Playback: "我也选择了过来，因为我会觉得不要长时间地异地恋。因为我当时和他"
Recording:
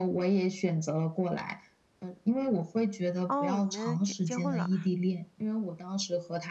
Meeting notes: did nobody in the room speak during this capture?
No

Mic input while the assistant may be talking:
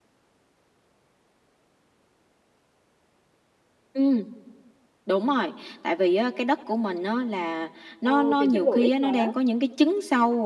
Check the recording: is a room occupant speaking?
Yes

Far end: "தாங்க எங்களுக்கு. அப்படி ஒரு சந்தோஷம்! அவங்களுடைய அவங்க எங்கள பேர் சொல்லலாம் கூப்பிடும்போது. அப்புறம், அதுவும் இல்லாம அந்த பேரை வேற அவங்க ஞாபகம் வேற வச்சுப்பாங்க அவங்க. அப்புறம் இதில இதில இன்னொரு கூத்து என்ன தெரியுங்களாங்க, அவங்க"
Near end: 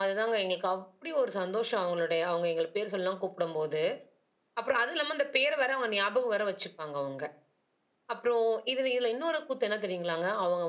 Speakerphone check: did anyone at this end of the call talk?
No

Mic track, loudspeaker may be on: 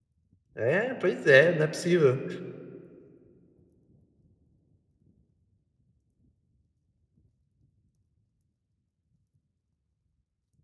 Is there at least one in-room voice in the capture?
Yes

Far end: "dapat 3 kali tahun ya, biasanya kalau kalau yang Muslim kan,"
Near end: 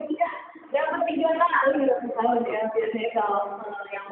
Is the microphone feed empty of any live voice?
No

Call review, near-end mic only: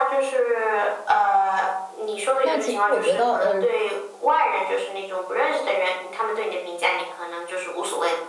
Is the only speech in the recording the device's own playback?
No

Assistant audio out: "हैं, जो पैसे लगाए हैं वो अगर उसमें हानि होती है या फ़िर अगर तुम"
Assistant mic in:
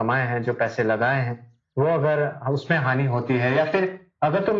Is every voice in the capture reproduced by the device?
Yes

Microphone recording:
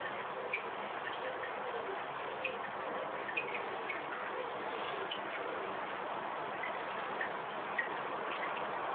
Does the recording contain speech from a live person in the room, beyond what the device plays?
No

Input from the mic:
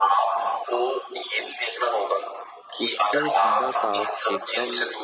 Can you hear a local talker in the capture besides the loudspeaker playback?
Yes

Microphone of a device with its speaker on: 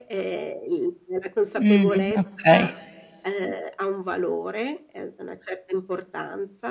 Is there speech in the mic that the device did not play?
Yes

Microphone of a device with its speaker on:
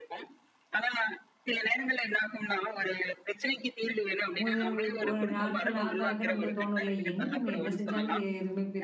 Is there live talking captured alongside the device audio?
Yes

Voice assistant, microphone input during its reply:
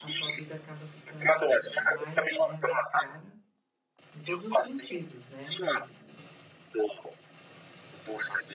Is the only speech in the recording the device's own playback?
No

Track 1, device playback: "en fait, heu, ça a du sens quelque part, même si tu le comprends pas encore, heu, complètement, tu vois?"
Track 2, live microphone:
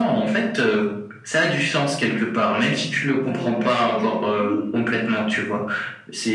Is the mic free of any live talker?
No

